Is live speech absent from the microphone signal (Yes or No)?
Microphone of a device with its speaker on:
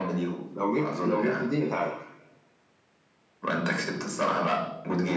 No